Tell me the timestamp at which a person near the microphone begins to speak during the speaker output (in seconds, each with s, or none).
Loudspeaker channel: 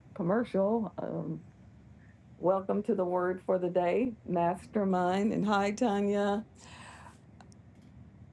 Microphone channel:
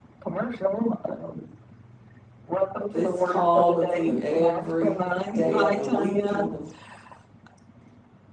2.9 s